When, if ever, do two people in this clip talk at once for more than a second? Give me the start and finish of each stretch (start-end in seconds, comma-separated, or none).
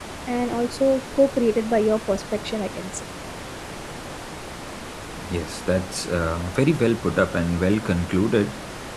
none